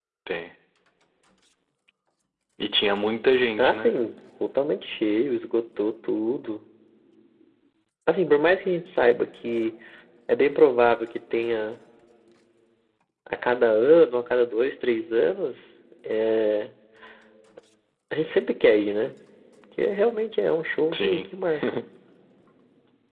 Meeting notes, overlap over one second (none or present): none